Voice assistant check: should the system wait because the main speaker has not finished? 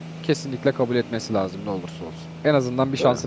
Yes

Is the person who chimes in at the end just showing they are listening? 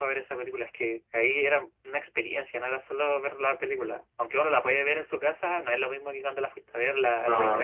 No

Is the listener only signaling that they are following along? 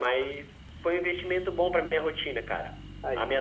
Yes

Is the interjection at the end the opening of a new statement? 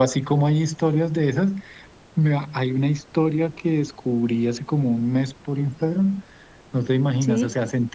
No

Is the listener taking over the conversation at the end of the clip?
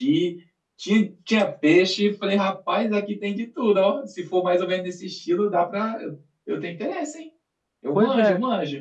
Yes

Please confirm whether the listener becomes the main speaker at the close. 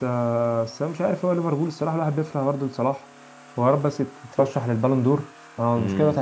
Yes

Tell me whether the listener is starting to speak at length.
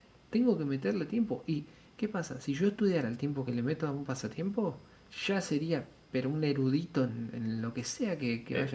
Yes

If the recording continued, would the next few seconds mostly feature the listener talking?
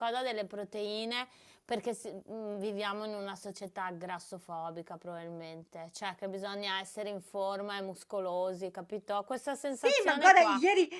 Yes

